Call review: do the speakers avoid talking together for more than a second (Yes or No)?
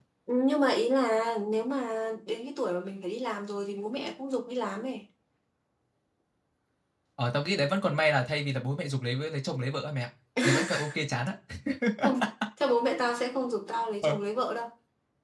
Yes